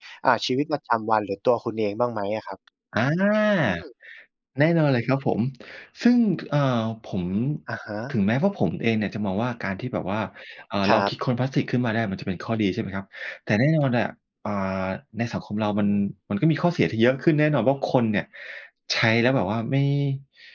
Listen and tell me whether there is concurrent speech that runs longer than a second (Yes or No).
No